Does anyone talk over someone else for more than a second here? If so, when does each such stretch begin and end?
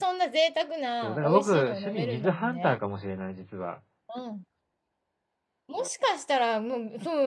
1.0-2.8

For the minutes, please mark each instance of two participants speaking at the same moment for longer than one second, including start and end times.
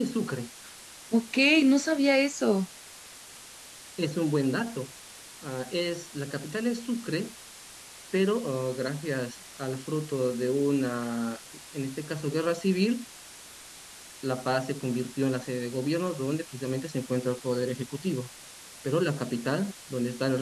none

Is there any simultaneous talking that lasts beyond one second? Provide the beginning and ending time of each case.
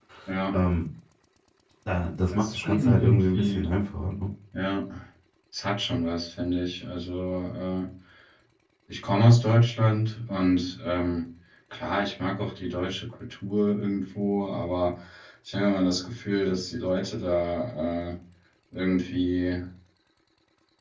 2.3-3.6

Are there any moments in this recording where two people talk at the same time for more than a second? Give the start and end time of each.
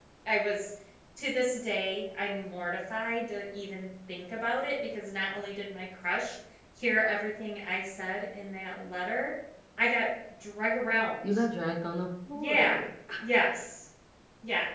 none

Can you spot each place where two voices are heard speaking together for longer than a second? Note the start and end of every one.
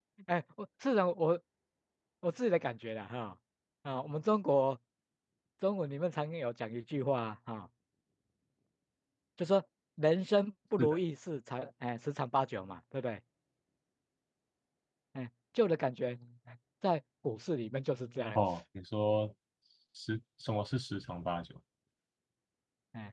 none

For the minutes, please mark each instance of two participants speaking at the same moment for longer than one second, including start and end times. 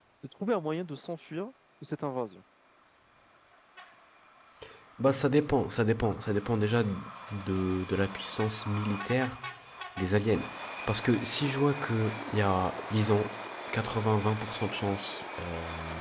none

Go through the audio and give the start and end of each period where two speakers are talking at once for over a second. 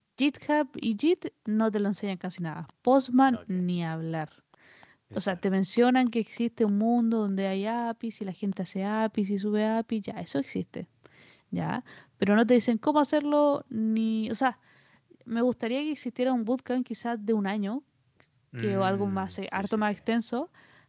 18.6-19.9

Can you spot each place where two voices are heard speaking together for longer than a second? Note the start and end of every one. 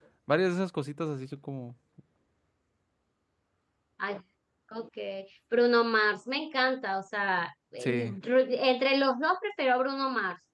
none

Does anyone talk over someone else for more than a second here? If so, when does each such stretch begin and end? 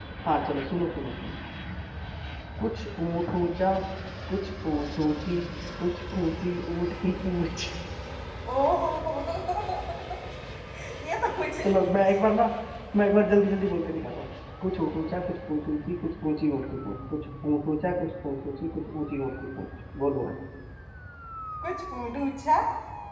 none

